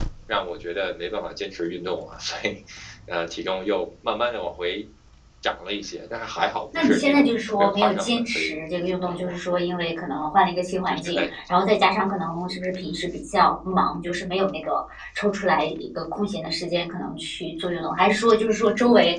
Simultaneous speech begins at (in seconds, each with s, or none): 6.8 s